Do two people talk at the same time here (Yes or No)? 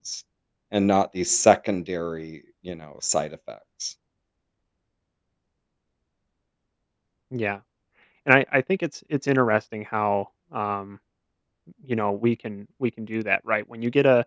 No